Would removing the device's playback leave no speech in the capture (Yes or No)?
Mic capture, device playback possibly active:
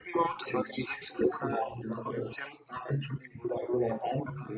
Yes